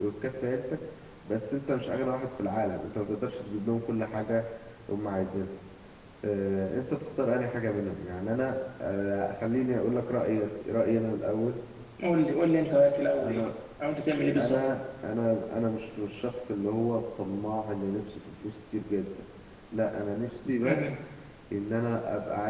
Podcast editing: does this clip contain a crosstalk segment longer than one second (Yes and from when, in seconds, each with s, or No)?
No